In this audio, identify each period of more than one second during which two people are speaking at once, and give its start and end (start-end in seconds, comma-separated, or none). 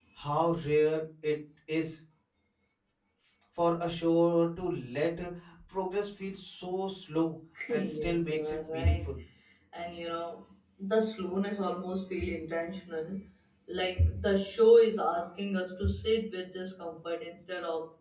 7.7-9.1